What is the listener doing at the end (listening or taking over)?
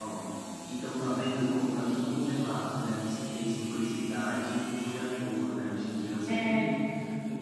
listening